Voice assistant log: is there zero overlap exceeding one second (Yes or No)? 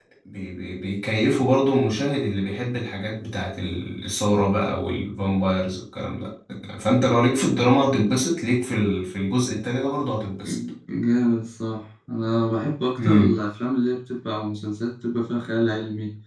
Yes